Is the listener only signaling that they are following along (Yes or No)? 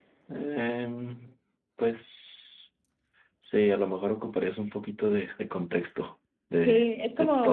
No